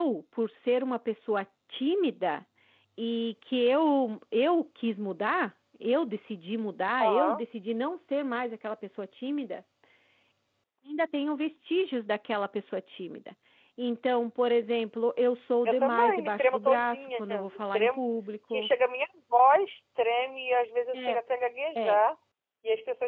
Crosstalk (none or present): present